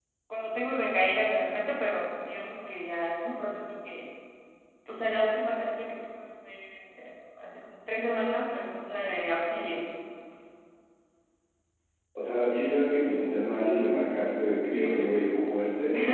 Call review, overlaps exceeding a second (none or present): none